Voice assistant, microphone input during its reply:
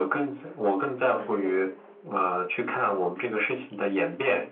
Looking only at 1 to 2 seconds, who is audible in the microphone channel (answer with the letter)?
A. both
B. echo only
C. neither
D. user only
A